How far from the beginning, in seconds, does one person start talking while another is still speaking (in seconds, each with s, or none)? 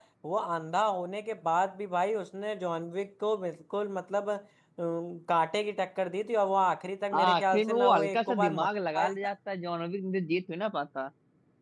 7.1 s